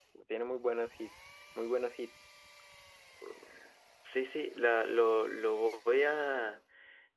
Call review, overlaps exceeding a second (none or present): none